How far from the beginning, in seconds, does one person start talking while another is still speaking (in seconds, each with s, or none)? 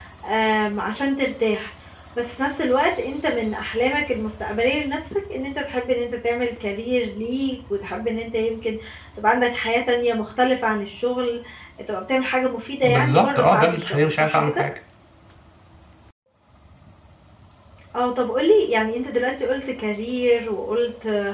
12.8 s